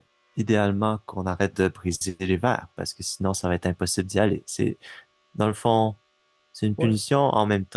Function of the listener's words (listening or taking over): listening